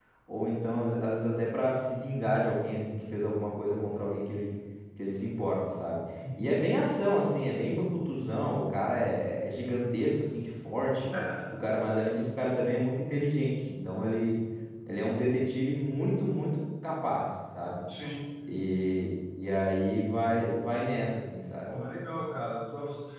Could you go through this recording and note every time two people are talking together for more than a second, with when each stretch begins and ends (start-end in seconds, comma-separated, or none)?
none